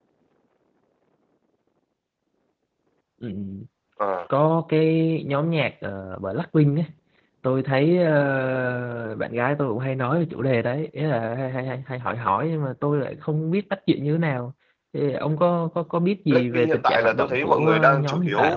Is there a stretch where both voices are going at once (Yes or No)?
Yes